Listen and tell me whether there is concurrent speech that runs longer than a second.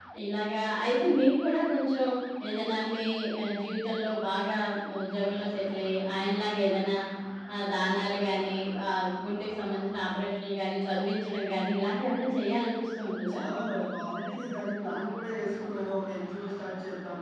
No

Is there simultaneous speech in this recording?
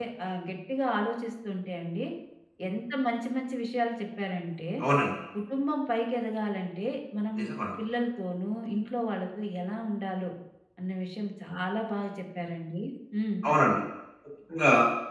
No

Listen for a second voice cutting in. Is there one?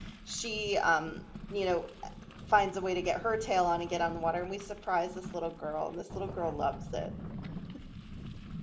No

